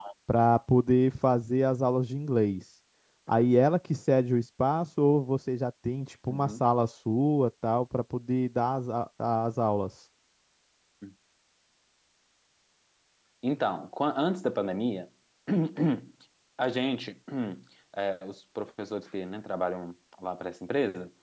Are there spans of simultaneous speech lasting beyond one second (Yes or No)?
No